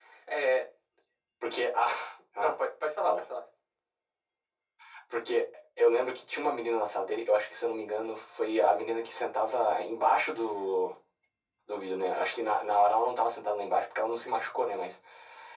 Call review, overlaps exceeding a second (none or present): none